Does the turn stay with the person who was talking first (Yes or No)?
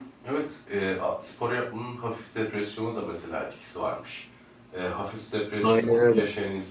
Yes